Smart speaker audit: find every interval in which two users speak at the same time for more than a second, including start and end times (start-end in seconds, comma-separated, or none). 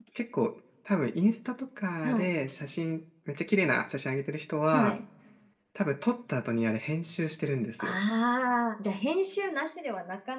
none